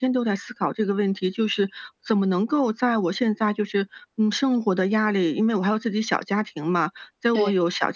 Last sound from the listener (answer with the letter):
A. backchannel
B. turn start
A